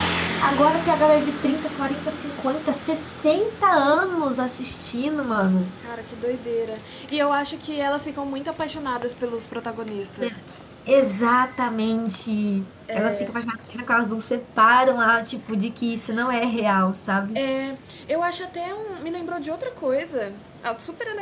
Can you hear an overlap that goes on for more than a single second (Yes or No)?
No